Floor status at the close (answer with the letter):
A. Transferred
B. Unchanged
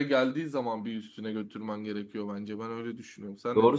A